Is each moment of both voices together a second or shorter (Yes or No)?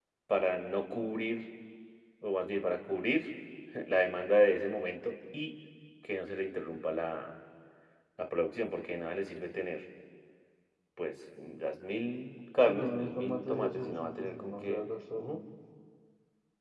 No